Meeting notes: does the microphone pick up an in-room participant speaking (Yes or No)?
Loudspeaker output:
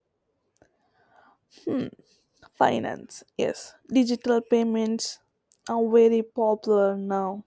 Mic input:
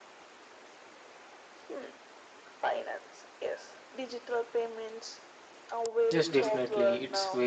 Yes